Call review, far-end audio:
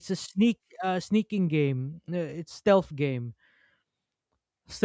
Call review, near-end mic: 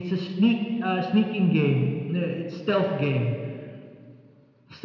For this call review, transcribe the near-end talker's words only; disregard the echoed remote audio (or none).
none